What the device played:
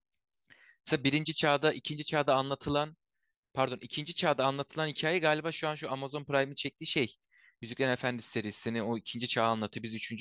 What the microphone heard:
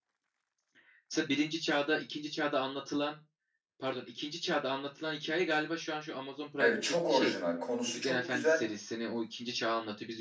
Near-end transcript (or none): evet çok orijinal. Konusu çok güzel.